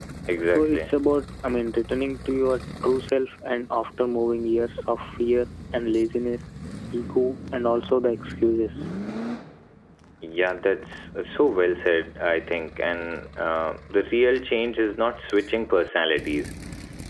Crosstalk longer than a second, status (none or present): none